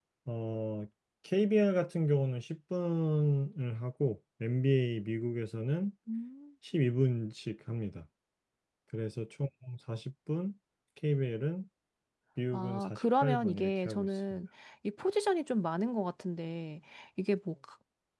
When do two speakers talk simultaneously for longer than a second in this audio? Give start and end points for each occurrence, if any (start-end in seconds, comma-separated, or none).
12.5-14.4